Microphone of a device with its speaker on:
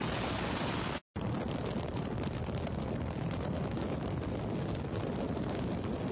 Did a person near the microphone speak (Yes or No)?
No